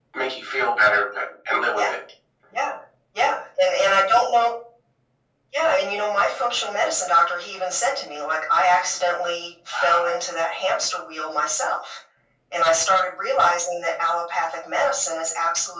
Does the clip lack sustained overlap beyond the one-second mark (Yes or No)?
Yes